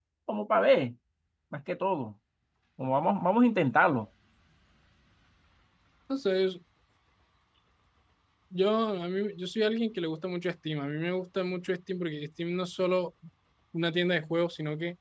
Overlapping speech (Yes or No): No